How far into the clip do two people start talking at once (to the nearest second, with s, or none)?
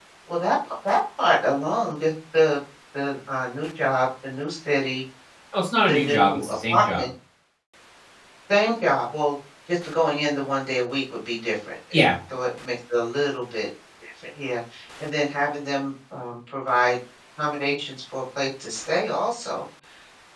6 s